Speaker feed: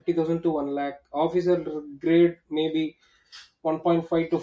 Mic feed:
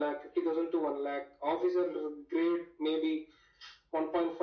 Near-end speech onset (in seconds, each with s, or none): none